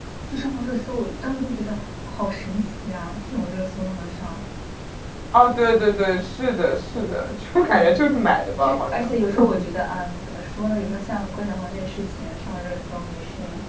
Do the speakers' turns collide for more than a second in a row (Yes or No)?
No